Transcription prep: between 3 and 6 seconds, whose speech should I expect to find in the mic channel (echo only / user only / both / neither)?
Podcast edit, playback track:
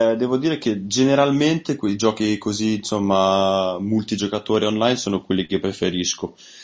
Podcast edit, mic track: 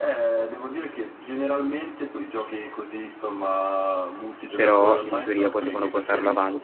both